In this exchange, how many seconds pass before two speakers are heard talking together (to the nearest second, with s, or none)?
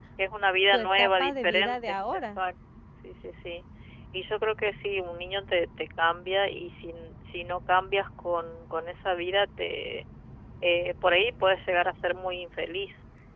1 s